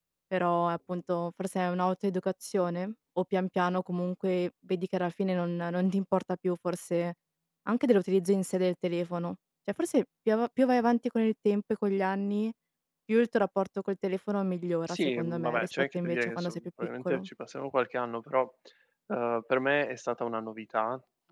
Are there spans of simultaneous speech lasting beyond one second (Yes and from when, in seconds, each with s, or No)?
Yes, from 14.9 s